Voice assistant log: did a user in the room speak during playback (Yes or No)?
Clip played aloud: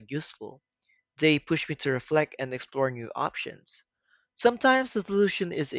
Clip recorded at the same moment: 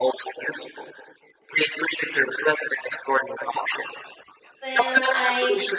Yes